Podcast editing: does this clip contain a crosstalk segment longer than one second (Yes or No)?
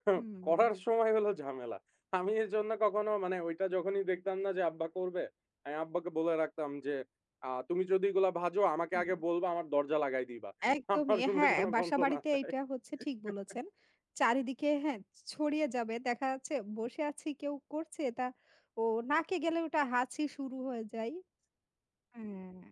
Yes